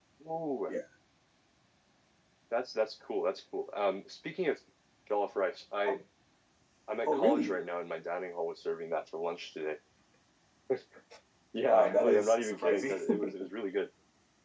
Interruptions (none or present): present